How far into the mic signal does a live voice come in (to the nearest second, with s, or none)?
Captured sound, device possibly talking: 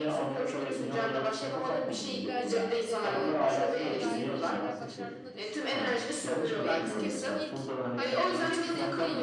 2 s